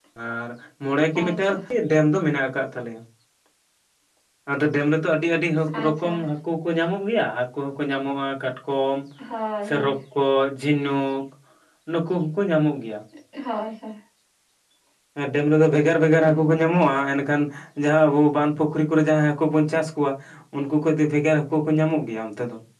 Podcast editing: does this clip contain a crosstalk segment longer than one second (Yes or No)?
No